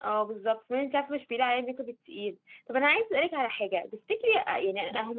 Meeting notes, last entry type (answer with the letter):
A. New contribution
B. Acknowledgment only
B